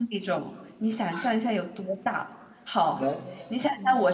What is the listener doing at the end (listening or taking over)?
listening